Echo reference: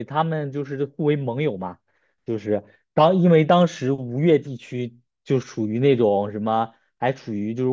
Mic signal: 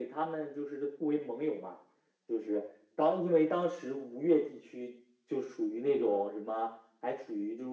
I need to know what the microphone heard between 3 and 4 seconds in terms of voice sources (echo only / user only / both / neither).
echo only